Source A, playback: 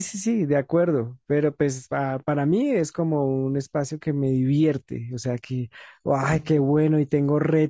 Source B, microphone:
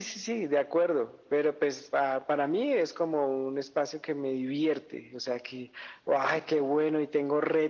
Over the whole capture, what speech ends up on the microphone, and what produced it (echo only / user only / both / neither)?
echo only